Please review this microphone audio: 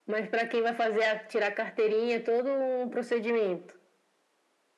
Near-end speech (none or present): none